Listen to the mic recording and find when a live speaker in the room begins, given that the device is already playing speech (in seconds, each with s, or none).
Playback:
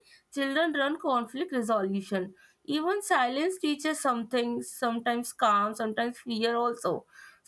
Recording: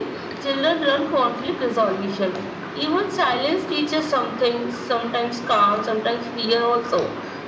none